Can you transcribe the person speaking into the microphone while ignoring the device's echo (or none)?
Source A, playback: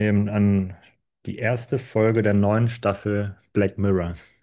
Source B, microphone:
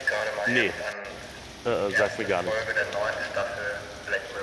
Nee, es- äh, äh, sagt mir gar nichts.